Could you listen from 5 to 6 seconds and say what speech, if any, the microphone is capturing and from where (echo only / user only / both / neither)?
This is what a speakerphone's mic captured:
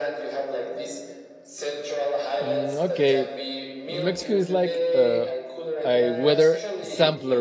both